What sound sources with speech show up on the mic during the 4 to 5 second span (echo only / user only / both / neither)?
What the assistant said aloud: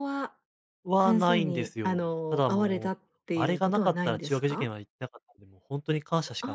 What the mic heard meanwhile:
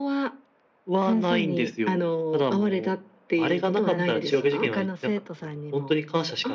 both